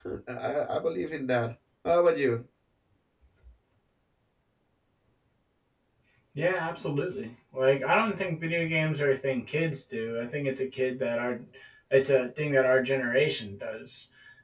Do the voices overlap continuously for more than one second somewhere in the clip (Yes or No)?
No